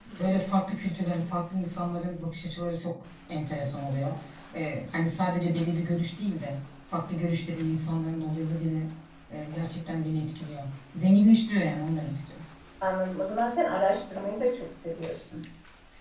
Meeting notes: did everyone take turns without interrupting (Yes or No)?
Yes